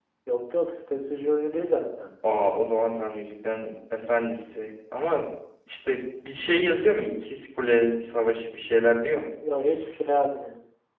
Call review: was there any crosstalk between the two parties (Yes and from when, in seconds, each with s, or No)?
No